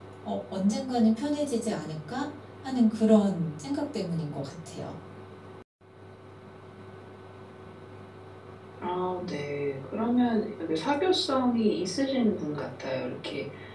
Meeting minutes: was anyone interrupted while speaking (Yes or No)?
No